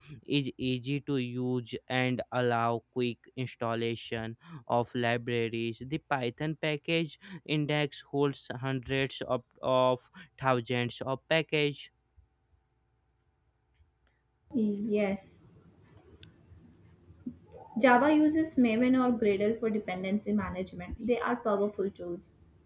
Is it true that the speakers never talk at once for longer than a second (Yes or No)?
Yes